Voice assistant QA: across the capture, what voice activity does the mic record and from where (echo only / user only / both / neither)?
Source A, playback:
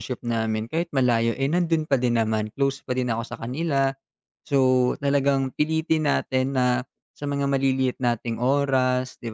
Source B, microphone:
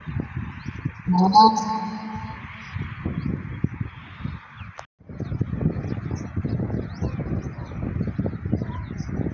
user only